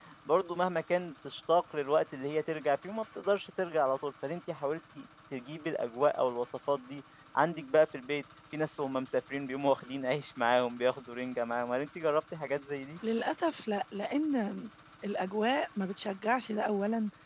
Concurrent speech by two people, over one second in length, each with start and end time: none

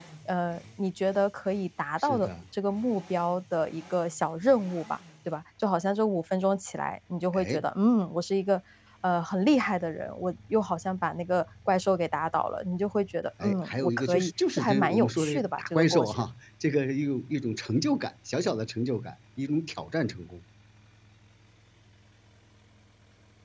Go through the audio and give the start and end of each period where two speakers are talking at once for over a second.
13.4-16.2

